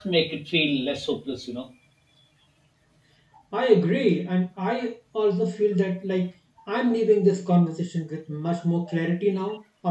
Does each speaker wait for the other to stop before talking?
Yes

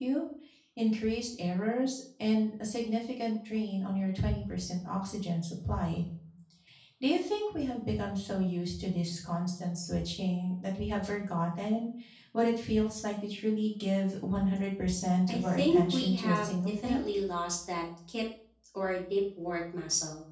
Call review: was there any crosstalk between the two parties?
Yes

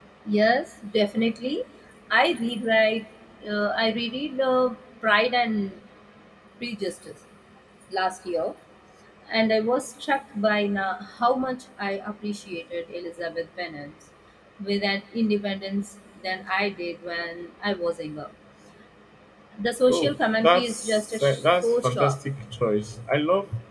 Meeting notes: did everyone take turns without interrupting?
No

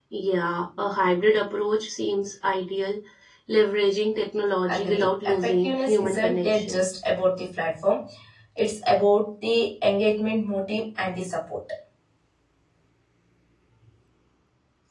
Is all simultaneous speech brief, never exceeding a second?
No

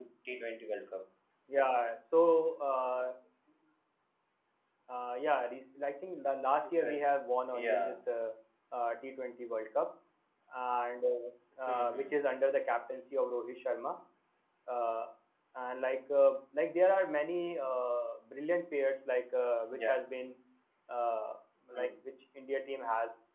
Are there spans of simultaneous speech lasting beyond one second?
No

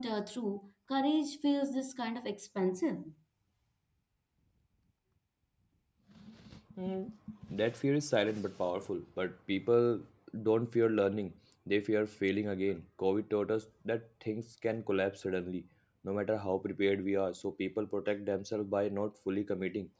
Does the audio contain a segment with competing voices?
No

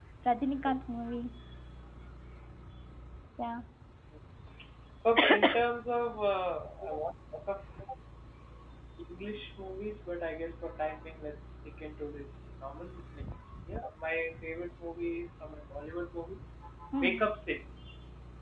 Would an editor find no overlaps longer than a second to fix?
Yes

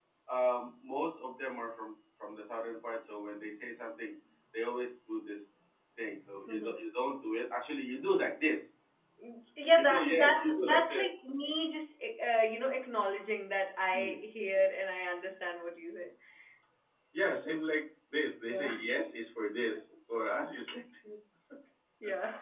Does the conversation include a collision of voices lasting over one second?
Yes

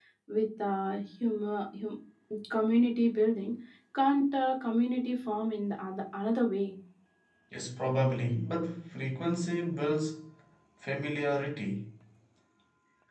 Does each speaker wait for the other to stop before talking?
Yes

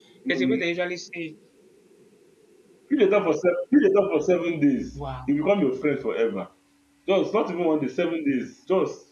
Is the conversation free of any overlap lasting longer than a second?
Yes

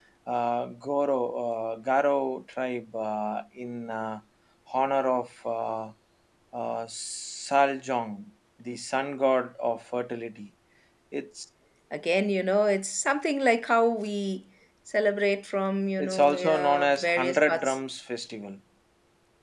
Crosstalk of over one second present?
Yes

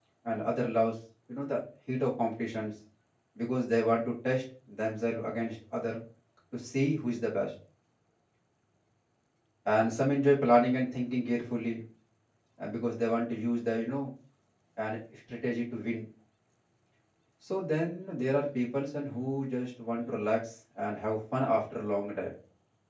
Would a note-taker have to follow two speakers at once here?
No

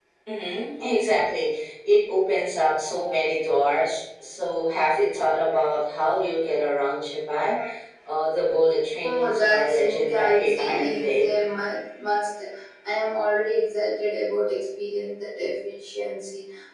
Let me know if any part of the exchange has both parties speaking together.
Yes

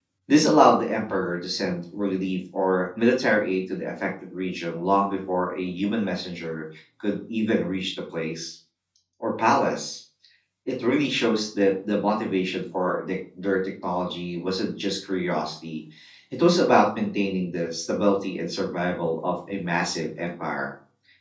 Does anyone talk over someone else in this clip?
No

